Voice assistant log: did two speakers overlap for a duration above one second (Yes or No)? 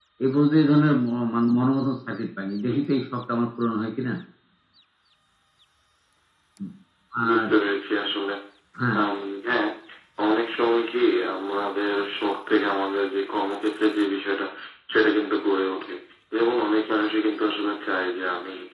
No